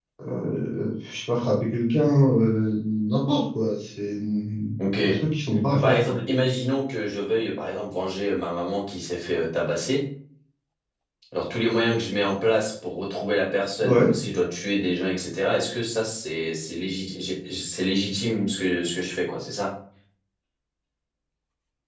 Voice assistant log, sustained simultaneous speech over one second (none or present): none